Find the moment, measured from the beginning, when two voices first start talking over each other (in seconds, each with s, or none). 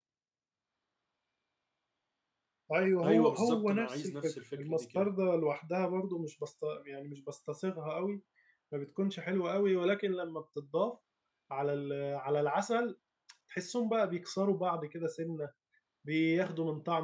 3.0 s